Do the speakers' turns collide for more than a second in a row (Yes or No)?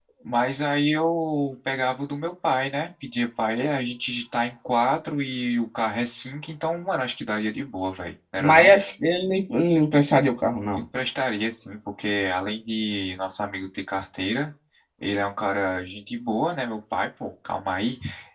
No